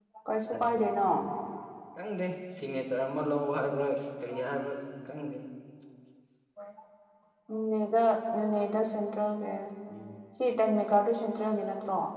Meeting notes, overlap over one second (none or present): none